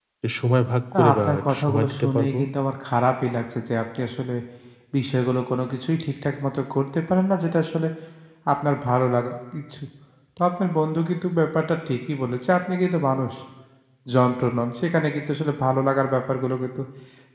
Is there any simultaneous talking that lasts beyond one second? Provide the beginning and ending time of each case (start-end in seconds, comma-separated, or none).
0.9-2.4